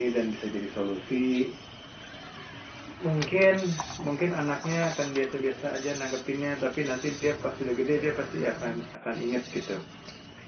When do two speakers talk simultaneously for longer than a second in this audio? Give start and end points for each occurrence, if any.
none

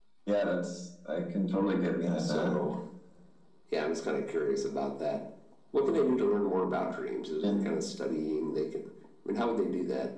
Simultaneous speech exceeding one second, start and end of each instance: none

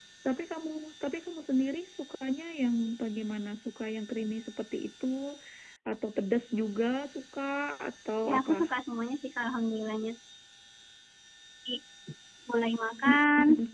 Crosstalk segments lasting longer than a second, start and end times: none

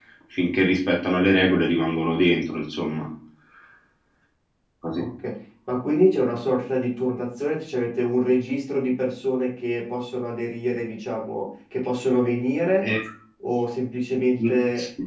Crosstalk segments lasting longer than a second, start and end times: none

